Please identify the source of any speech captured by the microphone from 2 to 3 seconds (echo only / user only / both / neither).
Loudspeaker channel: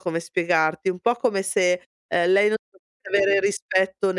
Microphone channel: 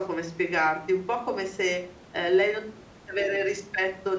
echo only